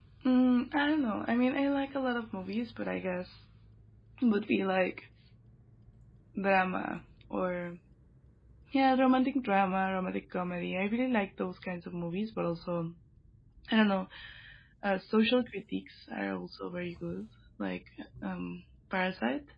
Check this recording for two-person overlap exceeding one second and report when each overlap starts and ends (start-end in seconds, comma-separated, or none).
none